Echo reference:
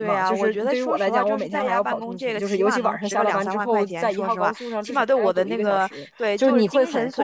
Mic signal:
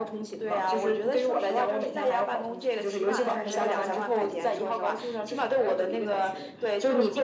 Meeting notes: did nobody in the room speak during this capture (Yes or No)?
No